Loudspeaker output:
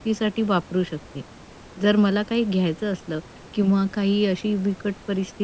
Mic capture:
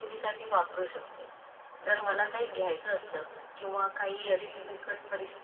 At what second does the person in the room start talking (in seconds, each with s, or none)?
none